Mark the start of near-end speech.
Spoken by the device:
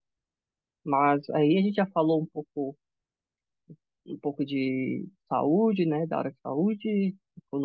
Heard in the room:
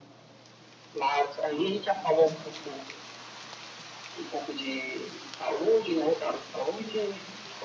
none

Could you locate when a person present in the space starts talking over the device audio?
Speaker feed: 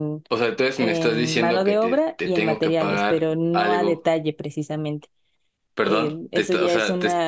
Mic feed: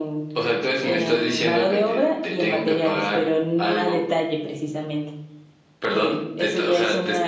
none

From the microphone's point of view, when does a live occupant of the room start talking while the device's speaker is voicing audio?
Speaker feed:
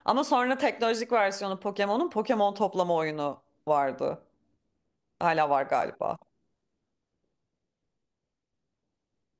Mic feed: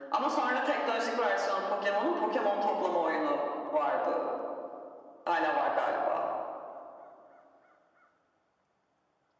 none

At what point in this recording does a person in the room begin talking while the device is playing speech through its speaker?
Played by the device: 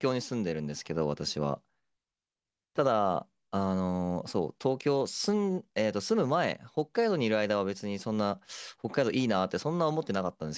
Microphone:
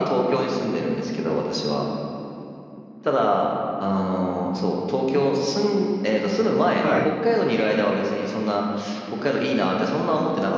6.8 s

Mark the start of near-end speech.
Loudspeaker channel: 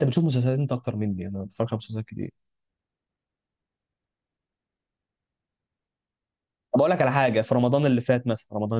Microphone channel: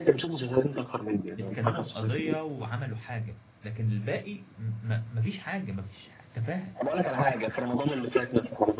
1.4 s

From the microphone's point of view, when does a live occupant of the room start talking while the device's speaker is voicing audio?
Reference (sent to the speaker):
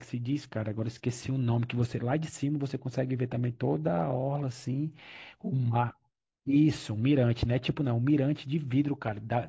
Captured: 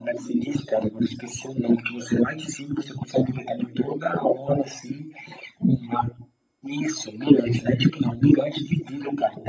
none

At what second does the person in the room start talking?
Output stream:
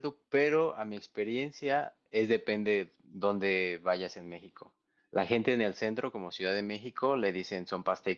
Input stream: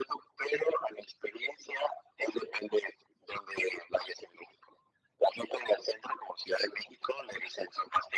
none

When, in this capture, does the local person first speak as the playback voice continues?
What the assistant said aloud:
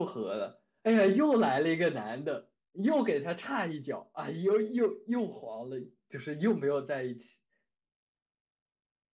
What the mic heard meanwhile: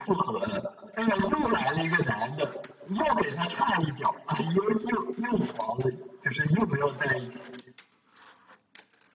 none

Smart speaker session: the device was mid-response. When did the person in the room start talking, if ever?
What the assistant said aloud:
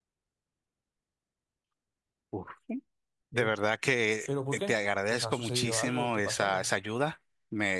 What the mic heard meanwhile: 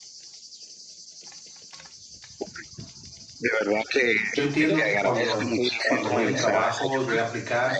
4.3 s

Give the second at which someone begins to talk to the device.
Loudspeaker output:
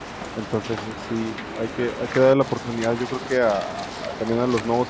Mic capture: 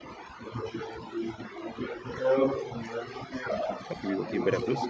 3.9 s

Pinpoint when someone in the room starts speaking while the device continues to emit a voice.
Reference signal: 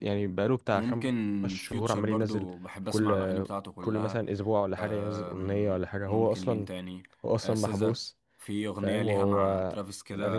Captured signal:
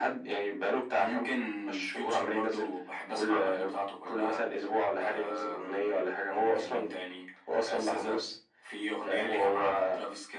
none

